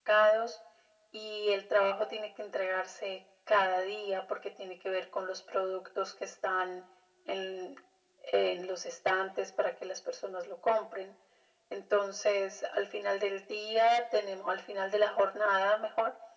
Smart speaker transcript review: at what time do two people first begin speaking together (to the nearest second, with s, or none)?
none